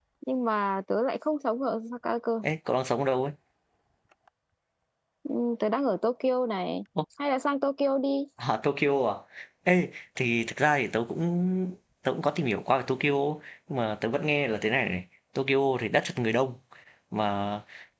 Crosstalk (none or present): none